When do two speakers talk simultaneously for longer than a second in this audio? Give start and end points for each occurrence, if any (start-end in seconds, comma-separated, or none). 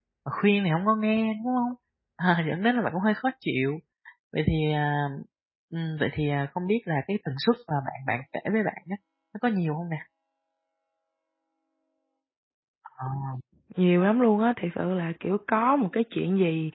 none